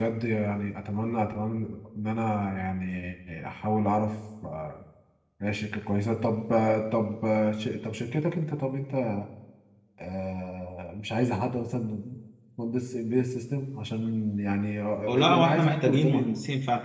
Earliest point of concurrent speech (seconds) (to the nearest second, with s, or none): 15 s